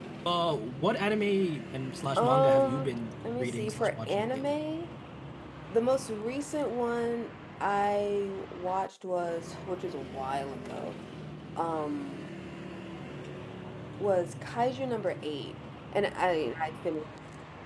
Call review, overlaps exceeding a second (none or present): present